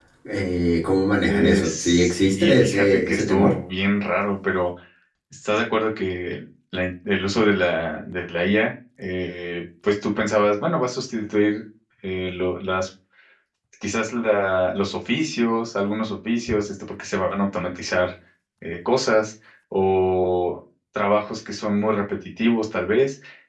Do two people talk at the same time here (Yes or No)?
Yes